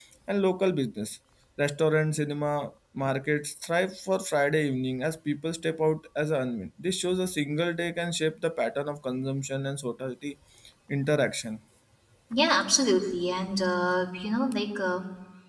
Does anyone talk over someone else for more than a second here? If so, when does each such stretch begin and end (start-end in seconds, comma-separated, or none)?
none